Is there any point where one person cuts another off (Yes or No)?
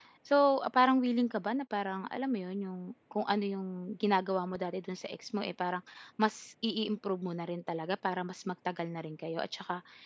No